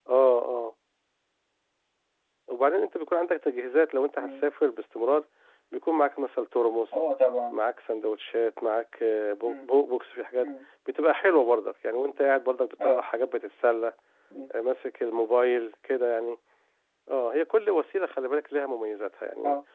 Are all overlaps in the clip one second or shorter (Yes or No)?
Yes